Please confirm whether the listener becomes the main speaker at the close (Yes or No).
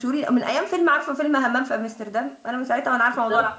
Yes